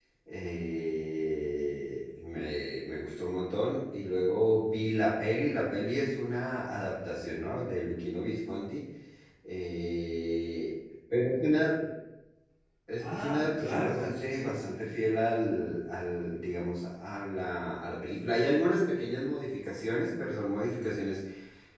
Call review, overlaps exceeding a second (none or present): present